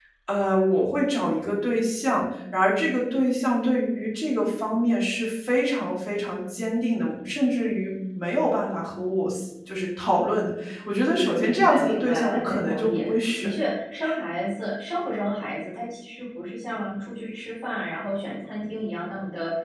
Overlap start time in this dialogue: 11 s

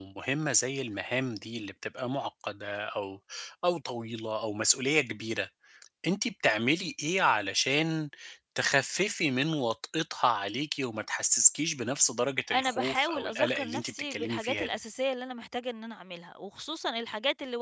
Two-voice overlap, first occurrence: 12 s

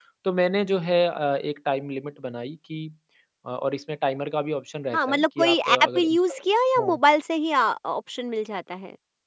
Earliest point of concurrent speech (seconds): 5 s

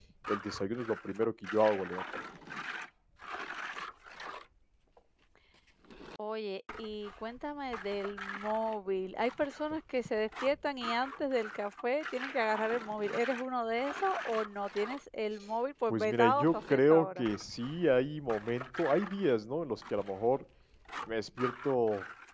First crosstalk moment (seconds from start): 16 s

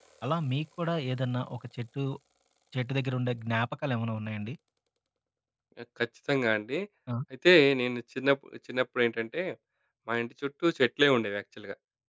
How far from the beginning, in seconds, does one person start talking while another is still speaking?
none

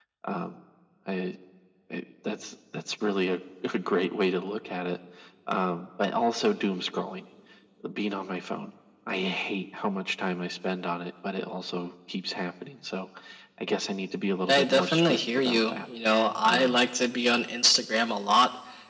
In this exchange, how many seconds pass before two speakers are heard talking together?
14 s

